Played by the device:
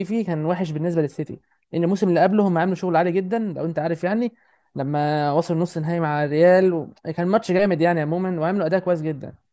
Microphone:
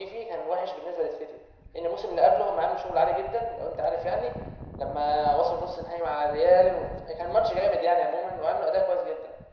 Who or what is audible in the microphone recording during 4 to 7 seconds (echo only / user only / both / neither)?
echo only